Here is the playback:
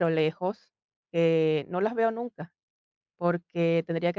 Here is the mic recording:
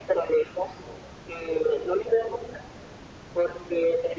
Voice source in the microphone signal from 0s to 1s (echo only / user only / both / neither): echo only